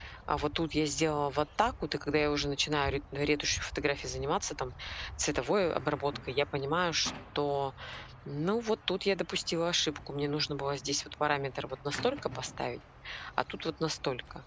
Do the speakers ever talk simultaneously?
No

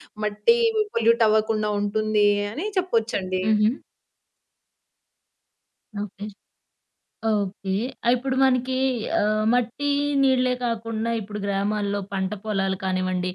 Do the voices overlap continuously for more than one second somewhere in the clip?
No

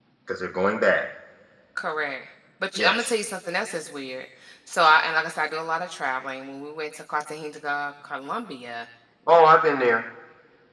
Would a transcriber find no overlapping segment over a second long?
Yes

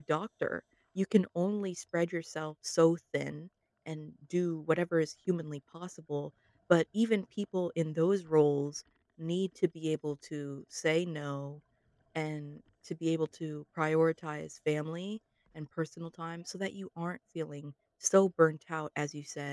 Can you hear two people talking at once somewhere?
No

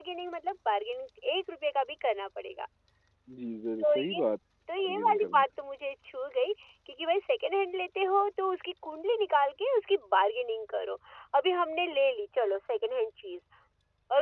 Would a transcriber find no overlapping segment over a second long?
Yes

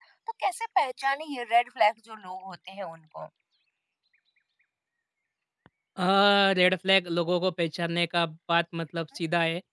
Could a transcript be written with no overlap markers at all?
Yes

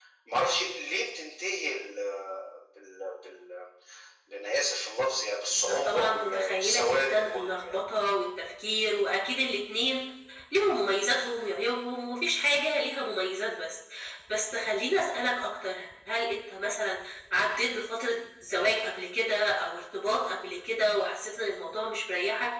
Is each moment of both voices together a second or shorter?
No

